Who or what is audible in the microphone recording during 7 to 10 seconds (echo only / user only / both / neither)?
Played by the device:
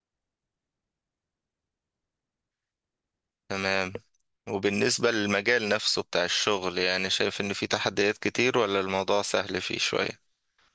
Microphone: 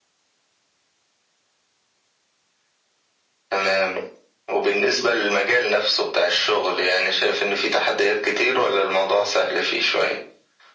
echo only